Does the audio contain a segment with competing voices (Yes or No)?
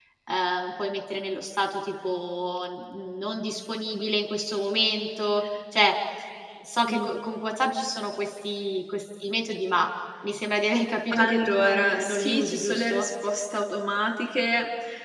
Yes